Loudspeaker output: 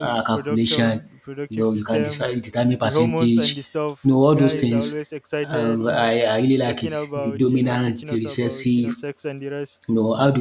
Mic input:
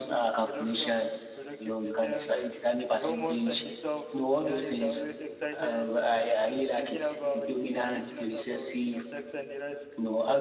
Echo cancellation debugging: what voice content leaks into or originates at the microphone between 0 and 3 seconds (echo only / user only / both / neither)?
echo only